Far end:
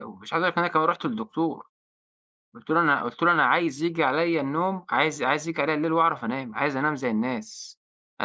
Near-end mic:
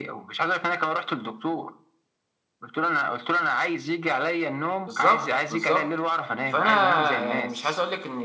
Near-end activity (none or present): present